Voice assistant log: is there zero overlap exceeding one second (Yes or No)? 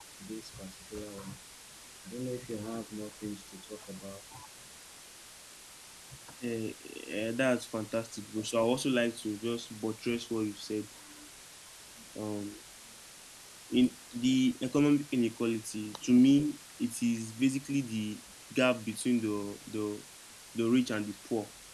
Yes